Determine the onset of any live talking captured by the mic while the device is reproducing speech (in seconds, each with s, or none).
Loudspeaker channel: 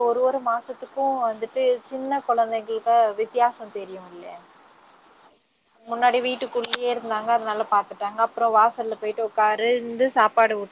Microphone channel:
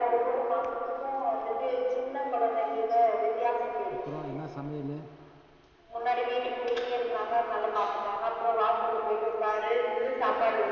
3.9 s